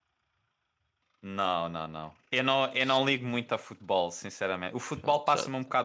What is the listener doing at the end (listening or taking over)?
listening